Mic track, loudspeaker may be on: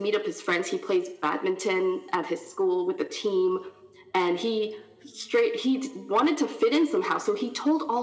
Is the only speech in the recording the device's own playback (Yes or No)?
Yes